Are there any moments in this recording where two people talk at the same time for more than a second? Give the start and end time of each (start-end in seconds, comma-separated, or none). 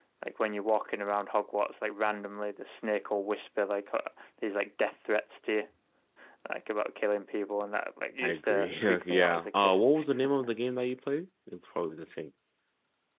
8.2-9.8